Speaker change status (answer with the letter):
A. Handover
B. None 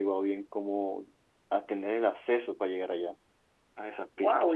A